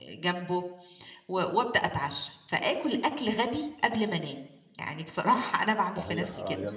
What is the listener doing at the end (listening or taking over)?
taking over